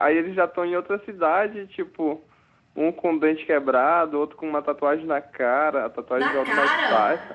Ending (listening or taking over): listening